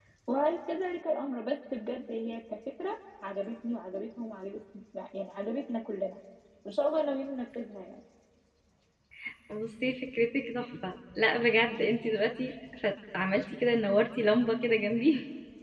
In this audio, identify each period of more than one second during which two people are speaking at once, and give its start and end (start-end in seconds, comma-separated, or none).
none